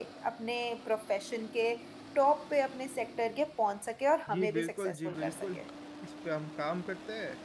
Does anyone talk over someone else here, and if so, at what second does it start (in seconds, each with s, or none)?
4.3 s